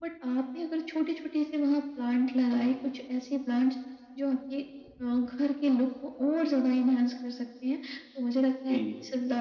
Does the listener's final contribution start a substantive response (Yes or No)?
No